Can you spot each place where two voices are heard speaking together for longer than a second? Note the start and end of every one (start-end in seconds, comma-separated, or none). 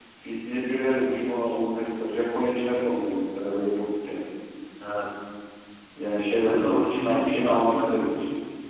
6.4-7.9